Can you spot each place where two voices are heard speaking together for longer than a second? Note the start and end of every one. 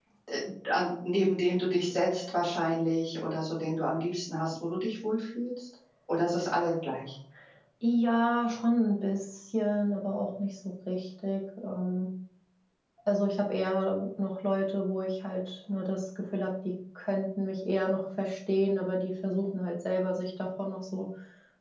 none

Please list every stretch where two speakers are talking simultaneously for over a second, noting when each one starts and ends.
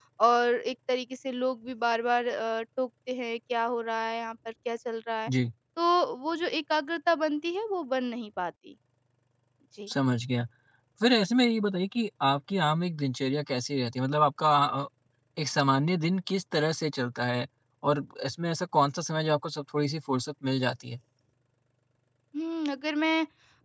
none

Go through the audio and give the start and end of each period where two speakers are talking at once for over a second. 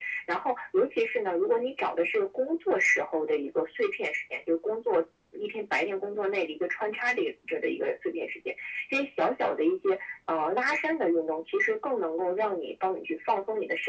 none

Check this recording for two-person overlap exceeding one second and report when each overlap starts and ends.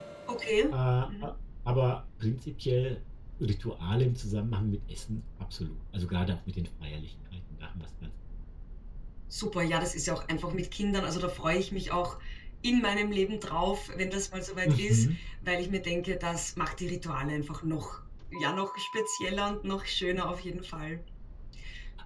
none

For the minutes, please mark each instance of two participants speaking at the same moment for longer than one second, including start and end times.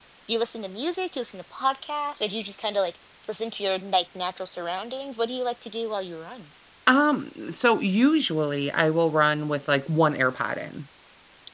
none

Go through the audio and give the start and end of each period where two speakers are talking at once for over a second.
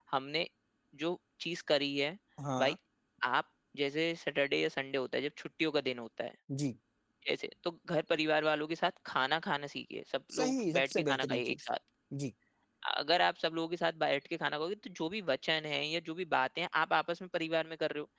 10.3-11.7

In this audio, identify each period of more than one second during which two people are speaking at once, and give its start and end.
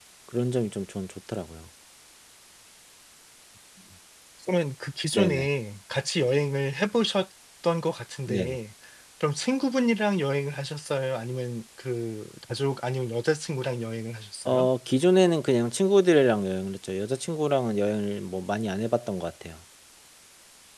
none

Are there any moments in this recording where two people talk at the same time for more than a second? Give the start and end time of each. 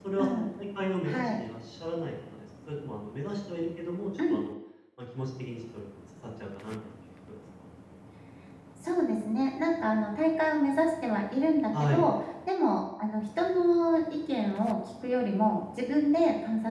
none

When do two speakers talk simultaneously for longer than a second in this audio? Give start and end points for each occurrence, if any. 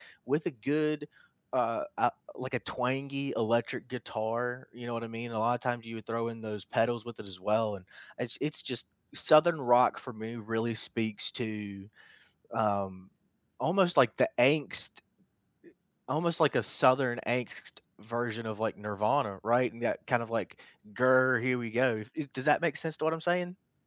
none

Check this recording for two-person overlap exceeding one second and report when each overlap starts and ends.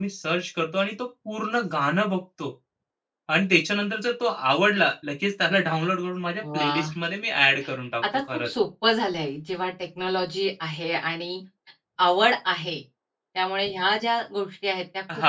none

